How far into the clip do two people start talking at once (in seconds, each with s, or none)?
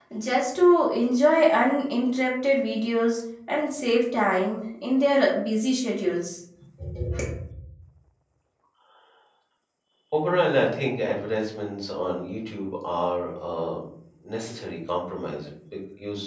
none